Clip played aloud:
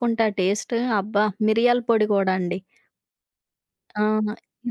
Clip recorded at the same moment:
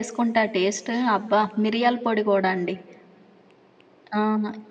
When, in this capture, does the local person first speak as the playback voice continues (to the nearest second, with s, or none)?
none